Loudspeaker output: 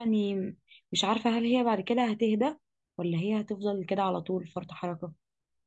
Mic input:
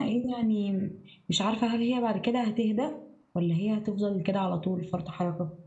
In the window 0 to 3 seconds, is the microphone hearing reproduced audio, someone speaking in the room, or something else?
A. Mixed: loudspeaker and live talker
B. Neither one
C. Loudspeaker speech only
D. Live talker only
C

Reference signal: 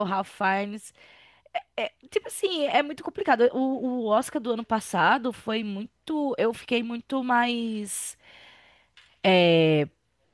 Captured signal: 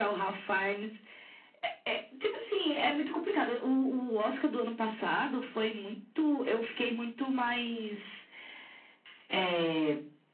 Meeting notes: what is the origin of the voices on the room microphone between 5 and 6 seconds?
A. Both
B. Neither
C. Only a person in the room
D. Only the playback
D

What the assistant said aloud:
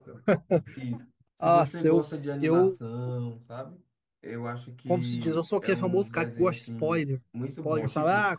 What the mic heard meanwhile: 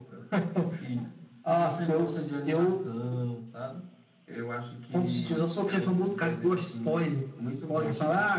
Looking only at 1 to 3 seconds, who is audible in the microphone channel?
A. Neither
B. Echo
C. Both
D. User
B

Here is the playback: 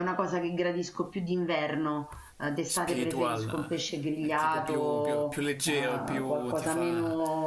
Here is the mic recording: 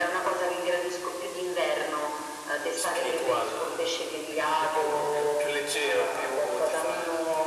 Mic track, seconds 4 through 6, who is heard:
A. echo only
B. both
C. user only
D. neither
A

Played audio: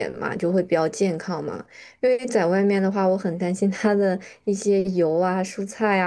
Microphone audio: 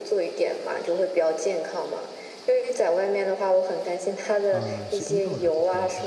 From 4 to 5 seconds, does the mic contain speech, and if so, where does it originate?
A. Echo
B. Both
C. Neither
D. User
B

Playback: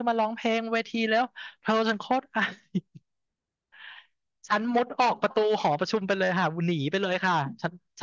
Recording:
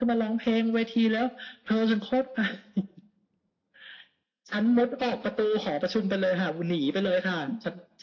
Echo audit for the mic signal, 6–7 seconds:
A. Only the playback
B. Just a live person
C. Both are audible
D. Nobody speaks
A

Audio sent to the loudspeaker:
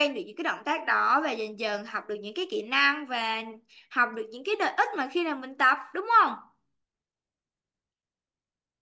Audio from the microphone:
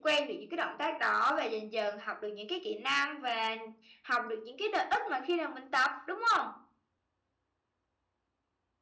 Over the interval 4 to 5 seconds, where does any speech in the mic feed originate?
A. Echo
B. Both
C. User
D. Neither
A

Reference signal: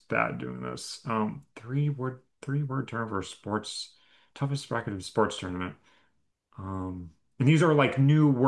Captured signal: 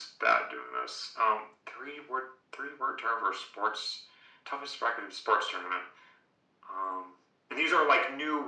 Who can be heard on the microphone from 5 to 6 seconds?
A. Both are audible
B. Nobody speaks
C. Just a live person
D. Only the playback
D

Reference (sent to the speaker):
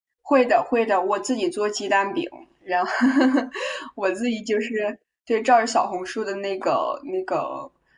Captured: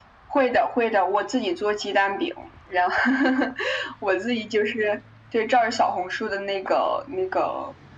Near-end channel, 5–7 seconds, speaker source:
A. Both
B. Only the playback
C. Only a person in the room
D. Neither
B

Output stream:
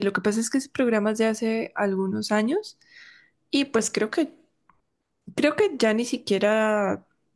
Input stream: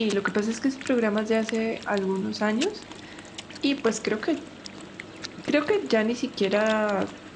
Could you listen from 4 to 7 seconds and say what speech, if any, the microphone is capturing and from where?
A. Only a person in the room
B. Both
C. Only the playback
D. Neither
C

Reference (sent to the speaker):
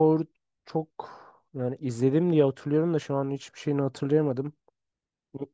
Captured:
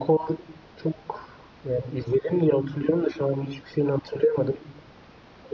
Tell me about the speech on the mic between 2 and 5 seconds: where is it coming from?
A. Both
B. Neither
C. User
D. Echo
D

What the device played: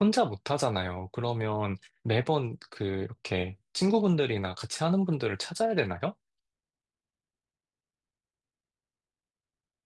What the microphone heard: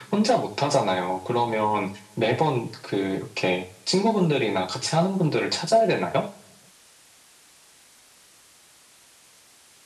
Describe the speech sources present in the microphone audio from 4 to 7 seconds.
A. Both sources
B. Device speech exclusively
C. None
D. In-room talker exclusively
B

